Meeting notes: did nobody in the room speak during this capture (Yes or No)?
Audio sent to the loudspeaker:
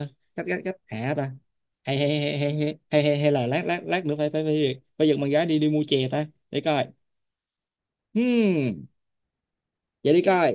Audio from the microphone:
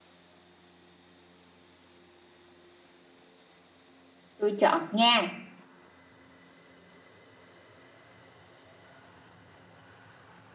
No